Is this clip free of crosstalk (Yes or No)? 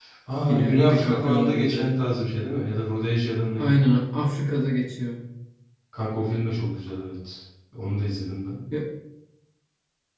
No